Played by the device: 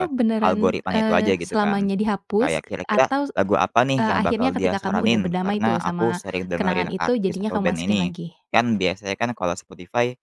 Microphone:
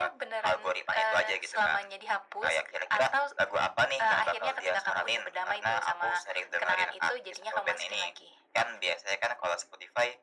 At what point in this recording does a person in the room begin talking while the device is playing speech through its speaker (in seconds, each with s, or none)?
none